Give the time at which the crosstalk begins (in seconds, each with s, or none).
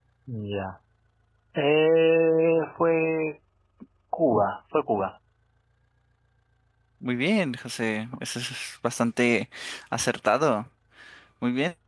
none